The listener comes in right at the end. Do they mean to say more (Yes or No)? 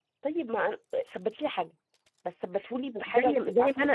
Yes